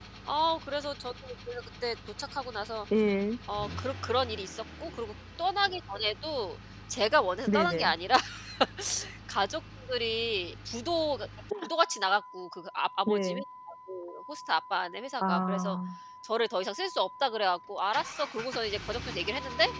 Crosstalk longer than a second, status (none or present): none